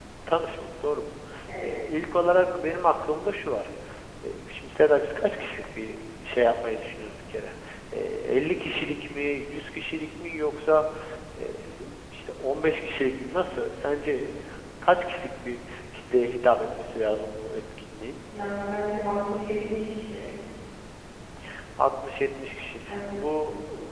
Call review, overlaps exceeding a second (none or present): none